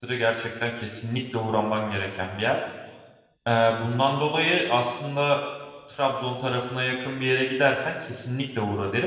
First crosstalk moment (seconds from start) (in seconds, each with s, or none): none